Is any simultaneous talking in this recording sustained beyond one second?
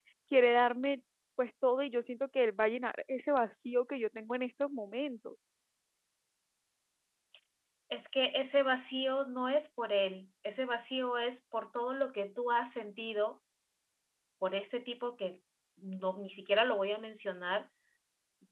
No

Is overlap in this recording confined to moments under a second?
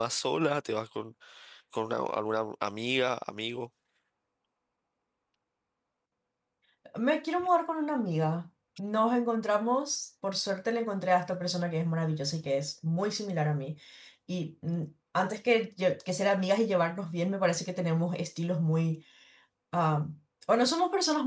Yes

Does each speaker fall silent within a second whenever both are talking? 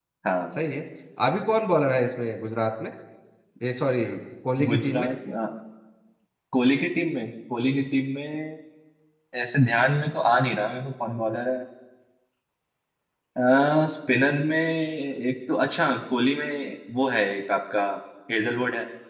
Yes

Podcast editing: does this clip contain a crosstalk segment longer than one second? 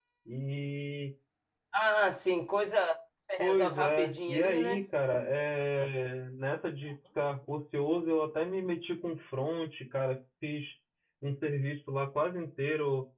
Yes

